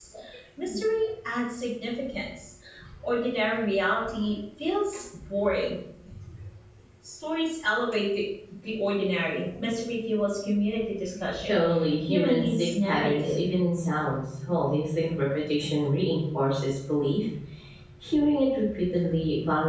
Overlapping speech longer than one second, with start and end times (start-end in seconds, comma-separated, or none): 12.1-13.4